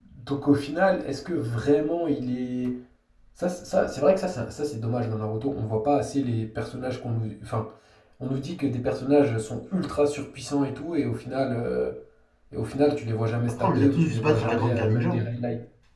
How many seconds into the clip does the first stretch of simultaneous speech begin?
13 s

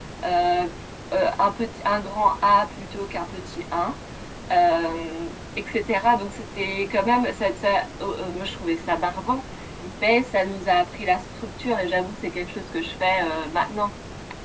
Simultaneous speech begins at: none

